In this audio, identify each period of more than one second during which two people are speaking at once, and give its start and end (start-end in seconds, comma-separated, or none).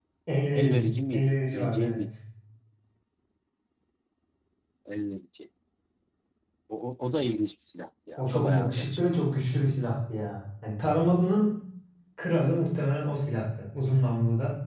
0.6-2.0, 8.2-9.4